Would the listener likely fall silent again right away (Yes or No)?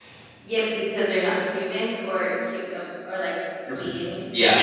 No